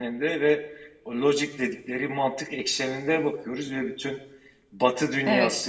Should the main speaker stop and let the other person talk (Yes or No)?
No